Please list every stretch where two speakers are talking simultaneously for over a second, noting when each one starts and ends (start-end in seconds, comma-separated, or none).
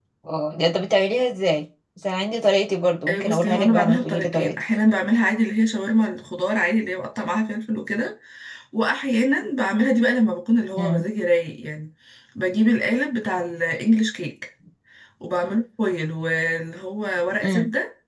3.1-4.6